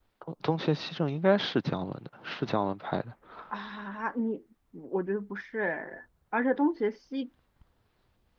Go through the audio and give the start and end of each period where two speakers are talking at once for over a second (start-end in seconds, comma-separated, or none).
none